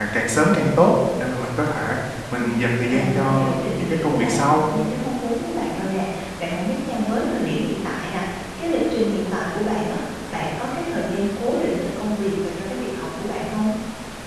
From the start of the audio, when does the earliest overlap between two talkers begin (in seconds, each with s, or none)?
2.3 s